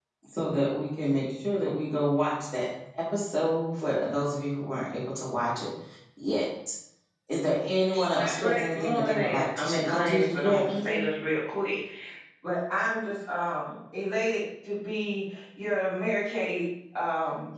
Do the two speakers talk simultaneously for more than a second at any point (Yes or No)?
Yes